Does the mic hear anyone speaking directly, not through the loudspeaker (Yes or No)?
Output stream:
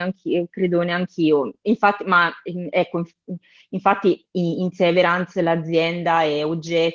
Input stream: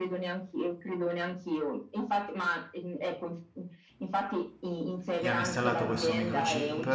Yes